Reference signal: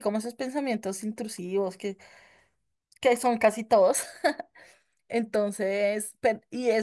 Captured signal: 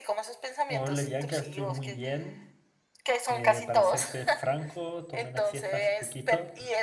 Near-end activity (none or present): present